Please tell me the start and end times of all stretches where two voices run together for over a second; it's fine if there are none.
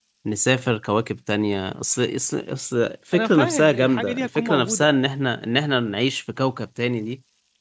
3.1-5.0

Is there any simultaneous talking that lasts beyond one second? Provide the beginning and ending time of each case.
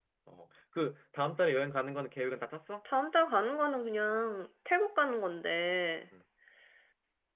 none

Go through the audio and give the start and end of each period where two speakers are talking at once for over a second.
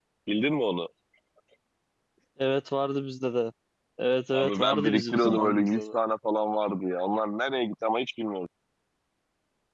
4.3-5.8

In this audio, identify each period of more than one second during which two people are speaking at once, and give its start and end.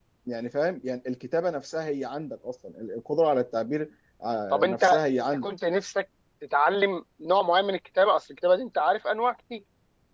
none

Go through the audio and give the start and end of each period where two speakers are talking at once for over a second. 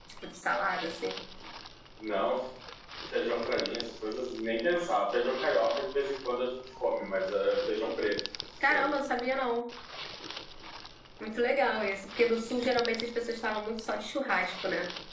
none

